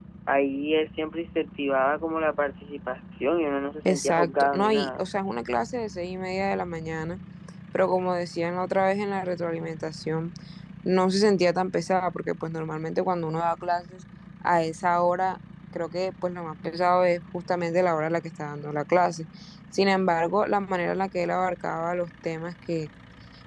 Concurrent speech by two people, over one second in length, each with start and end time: 3.8-5.0

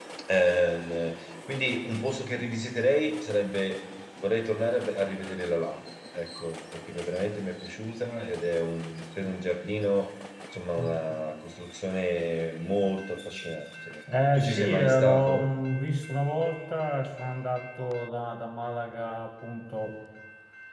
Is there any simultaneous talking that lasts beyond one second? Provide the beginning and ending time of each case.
14.2-15.5

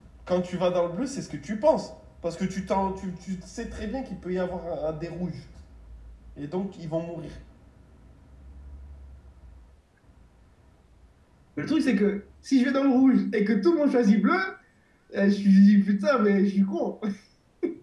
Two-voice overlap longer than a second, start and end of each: none

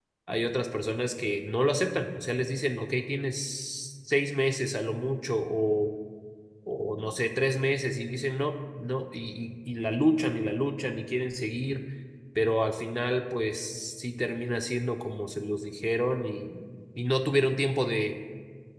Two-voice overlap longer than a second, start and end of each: none

